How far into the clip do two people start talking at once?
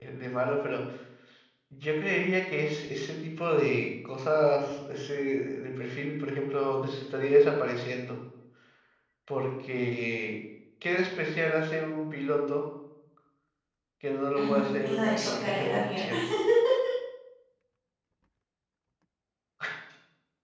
14.3 s

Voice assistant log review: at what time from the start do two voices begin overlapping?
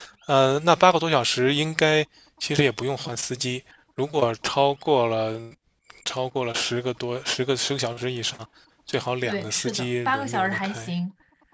9.2 s

